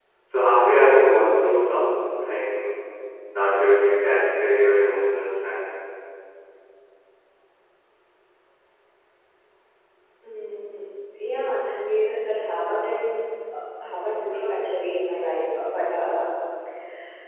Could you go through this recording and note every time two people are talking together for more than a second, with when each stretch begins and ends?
none

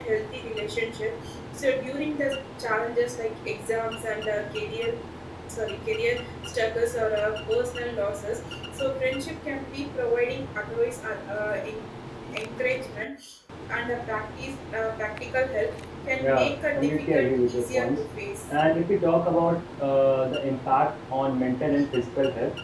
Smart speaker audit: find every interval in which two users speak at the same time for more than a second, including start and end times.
16.2-17.9

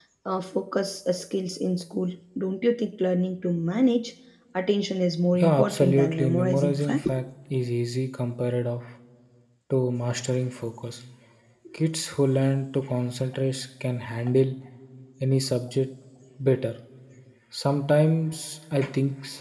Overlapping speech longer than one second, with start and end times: 5.3-7.1

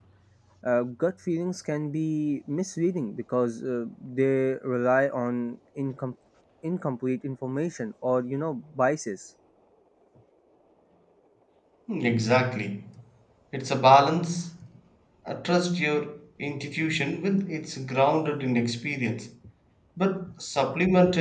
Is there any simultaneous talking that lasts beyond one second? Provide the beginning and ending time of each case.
none

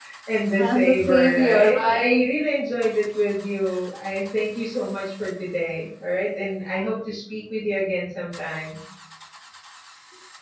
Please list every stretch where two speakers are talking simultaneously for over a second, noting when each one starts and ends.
0.6-2.2

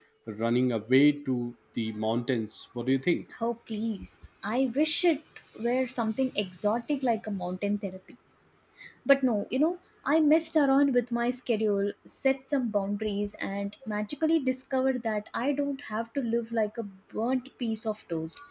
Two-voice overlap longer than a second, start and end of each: none

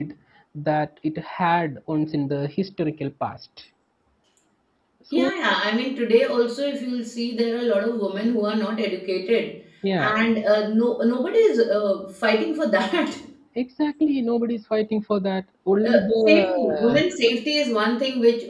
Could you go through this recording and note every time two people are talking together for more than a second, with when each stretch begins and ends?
15.8-17.0

